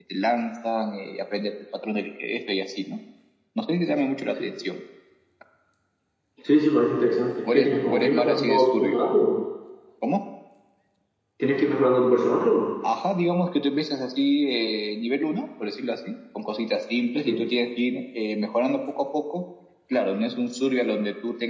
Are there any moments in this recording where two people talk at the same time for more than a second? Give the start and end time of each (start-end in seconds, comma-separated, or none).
7.4-9.2